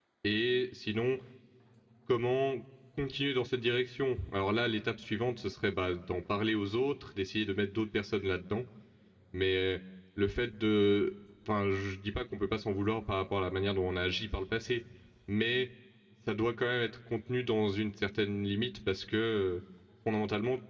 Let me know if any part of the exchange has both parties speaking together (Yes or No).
No